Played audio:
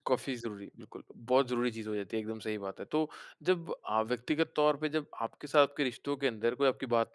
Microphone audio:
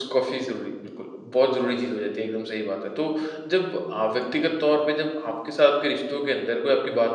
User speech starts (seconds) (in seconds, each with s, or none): none